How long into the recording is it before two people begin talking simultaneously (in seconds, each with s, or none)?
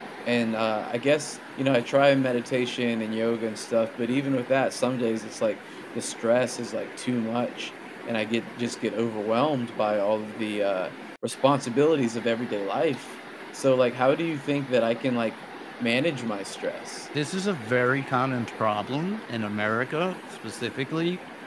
none